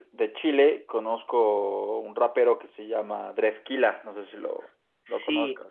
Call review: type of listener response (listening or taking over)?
taking over